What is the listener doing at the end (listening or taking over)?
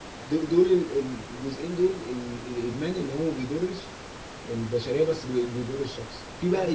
listening